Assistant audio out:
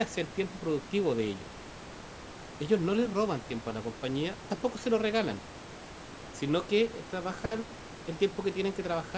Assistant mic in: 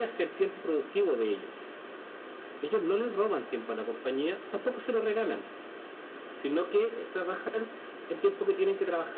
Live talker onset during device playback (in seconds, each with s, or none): none